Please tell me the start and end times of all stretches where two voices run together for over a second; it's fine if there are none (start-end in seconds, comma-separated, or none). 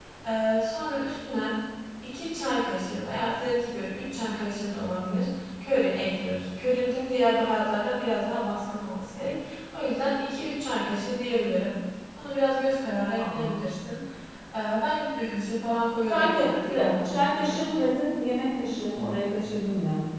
16.1-17.6